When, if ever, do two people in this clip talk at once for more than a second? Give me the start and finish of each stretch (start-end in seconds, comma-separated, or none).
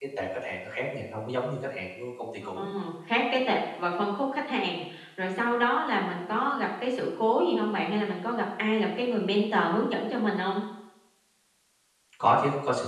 none